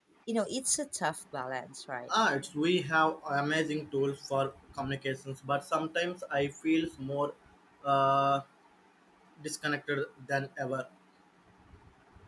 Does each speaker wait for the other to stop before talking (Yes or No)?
Yes